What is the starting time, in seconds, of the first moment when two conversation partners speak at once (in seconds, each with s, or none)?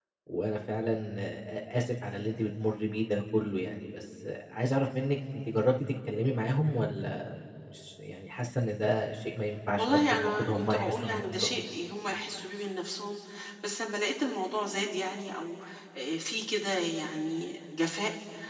9.8 s